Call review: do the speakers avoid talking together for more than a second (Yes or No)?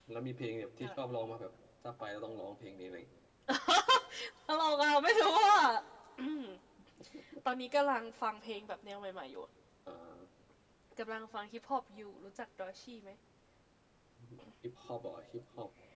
Yes